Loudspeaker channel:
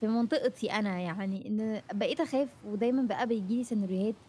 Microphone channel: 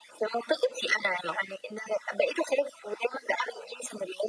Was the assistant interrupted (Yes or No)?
No